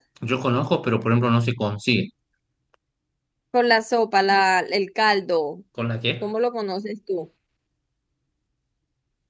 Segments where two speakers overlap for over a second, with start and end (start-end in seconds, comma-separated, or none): none